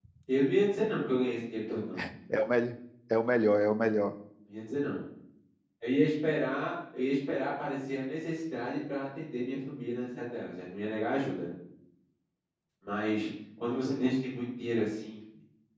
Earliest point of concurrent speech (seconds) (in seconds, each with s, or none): none